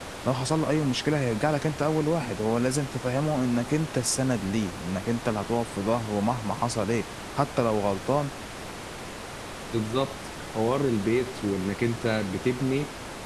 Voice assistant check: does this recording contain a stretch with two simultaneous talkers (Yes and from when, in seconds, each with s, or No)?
No